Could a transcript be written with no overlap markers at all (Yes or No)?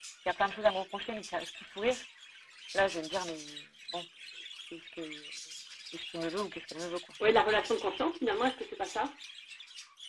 Yes